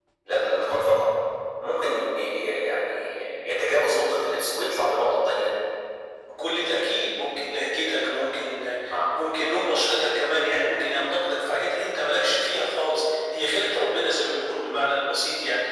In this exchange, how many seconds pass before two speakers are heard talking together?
none

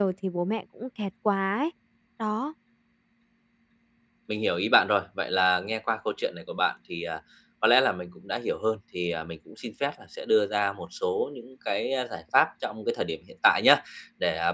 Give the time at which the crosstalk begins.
none

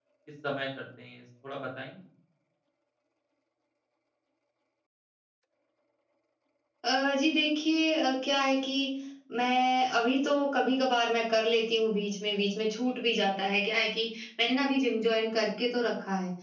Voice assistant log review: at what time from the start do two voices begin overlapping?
none

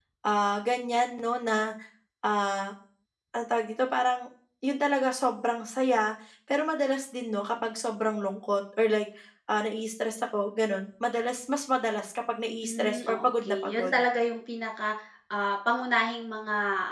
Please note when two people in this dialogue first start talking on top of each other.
12.6 s

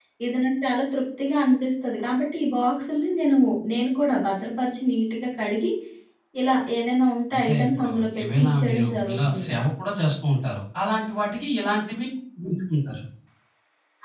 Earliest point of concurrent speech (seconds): 7.3 s

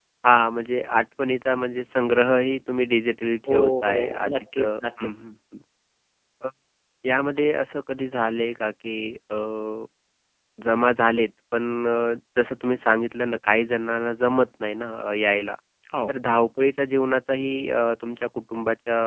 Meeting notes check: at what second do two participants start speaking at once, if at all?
3.5 s

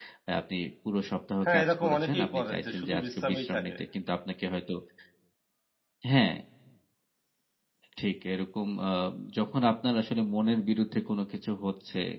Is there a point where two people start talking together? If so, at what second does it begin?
1.4 s

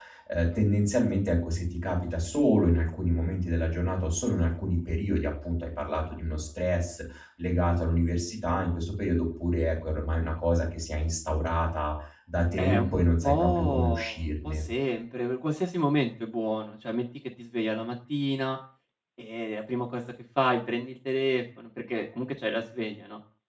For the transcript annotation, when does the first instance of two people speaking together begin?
12.6 s

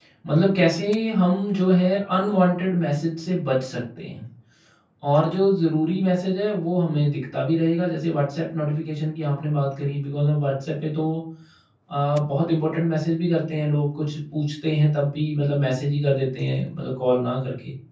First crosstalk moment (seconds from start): none

